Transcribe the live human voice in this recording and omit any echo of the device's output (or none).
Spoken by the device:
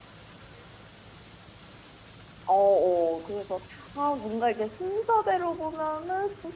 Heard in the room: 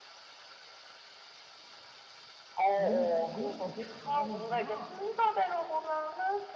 너 이런 거 되게 잘하는구나.